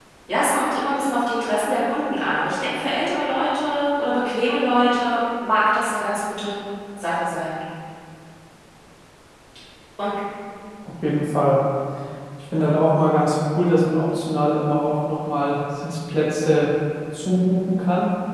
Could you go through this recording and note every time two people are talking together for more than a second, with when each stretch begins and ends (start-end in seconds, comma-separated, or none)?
none